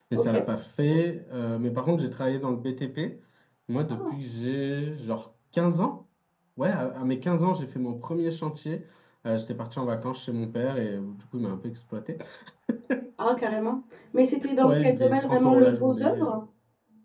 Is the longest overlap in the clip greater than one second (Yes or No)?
Yes